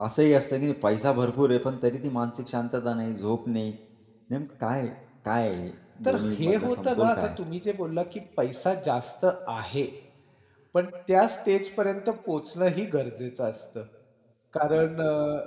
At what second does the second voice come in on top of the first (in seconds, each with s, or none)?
6.0 s